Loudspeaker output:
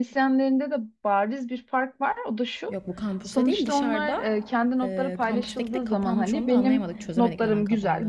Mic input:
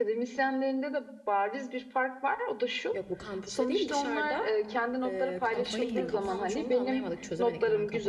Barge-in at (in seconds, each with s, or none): 5.5 s